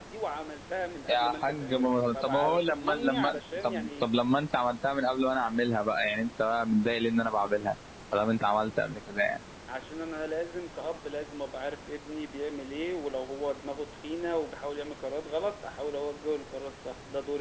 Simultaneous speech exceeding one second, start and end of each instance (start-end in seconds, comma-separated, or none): 1.1-4.0